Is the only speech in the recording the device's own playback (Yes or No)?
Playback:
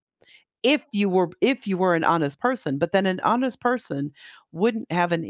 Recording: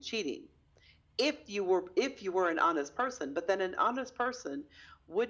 Yes